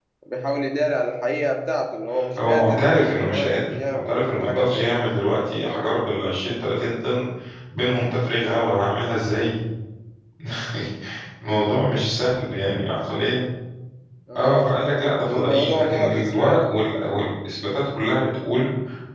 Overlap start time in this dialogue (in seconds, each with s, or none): 2.4 s